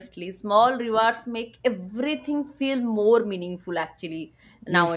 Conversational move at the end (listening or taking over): taking over